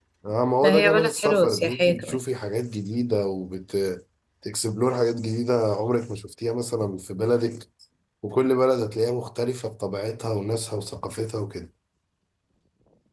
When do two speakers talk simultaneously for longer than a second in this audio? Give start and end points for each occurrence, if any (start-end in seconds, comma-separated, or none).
0.6-2.2